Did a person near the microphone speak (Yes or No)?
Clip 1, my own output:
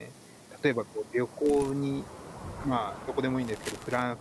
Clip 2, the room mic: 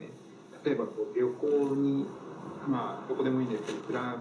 No